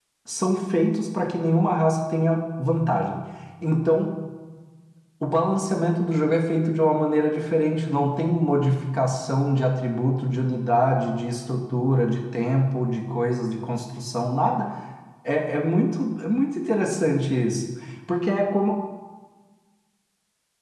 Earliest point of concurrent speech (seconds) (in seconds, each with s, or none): none